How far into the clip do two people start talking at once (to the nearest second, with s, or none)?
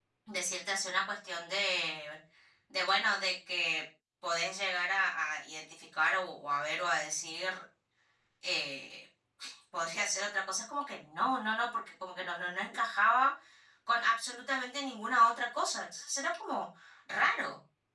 none